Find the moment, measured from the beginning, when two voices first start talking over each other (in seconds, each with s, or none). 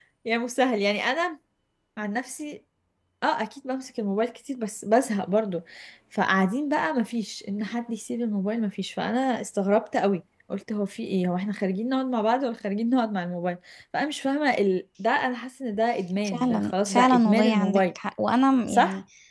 16.2 s